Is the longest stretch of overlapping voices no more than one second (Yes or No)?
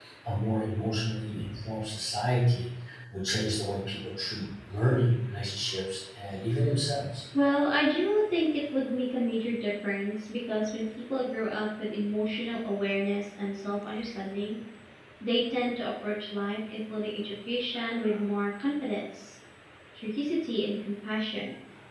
Yes